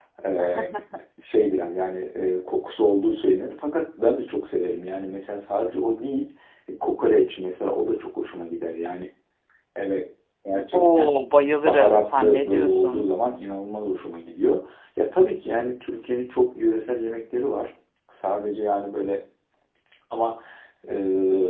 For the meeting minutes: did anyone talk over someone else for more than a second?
Yes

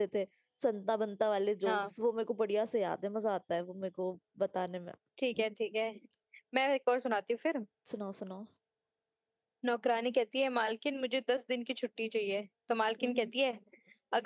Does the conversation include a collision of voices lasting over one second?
No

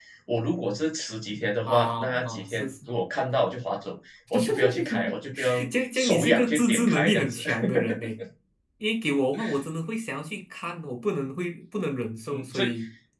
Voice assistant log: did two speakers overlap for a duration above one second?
Yes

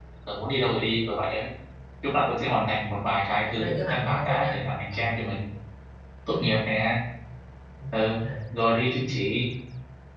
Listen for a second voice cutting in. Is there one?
Yes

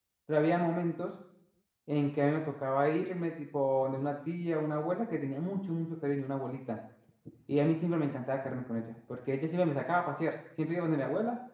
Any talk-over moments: No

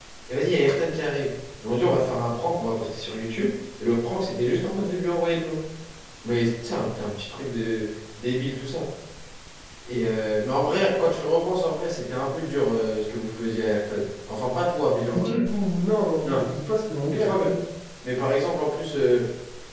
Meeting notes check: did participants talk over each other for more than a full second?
No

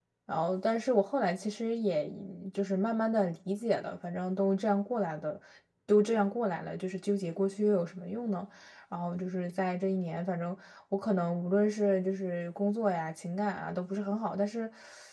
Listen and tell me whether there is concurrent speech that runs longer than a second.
No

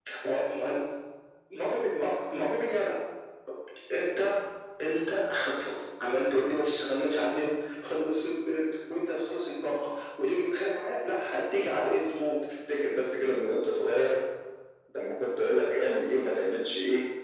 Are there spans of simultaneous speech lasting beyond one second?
No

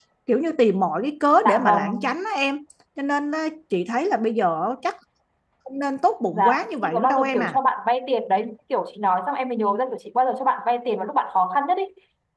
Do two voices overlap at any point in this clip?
Yes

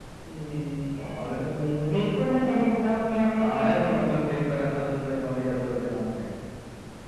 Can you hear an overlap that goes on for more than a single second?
Yes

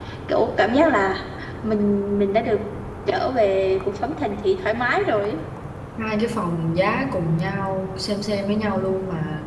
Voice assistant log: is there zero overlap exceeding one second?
Yes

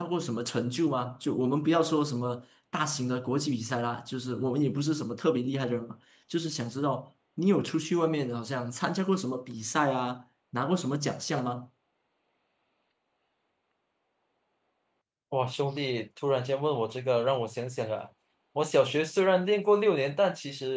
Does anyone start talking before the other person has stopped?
No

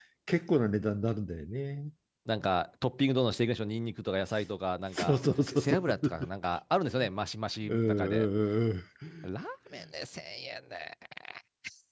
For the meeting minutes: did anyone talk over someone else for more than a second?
Yes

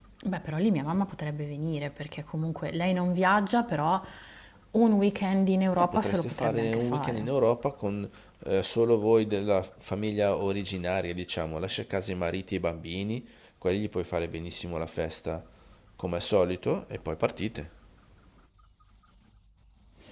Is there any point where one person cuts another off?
Yes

